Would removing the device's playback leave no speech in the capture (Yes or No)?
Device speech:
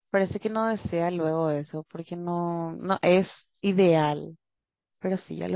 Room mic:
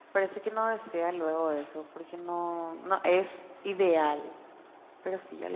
Yes